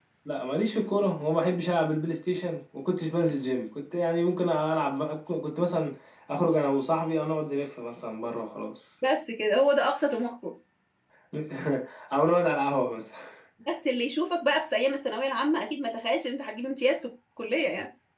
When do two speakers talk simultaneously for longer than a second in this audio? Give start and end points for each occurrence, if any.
none

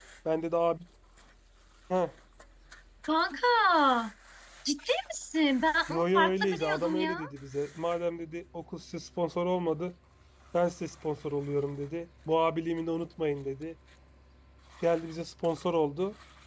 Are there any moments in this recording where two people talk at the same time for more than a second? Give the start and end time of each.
5.9-7.2

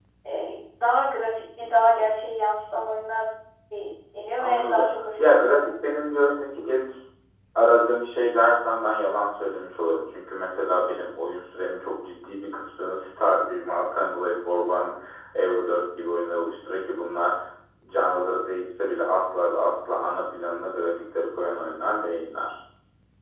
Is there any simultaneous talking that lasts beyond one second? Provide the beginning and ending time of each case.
4.4-5.7

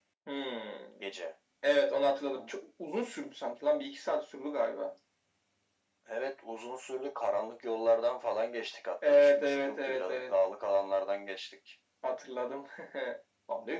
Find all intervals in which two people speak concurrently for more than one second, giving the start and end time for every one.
9.1-10.3

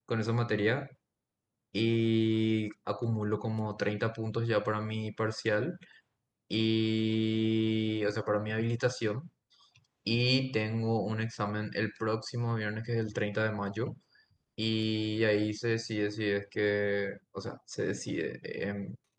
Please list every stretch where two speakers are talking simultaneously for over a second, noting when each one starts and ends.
none

